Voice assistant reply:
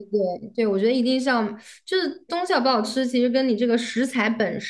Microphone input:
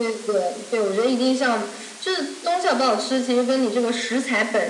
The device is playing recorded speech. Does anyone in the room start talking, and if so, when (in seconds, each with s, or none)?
none